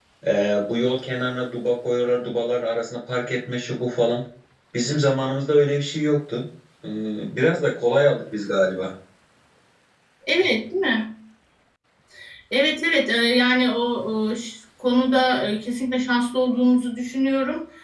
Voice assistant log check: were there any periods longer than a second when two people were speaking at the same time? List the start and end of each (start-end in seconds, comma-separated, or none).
none